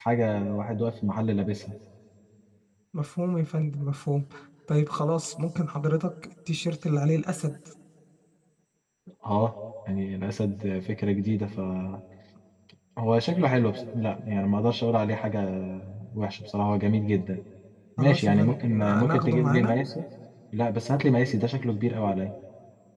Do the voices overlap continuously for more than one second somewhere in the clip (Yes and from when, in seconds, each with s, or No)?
Yes, from 18.0 s